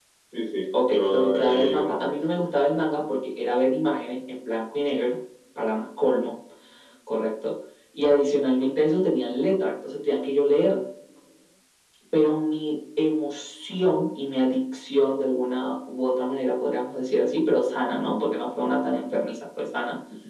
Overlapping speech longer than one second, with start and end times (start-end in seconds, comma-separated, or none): 0.9-2.1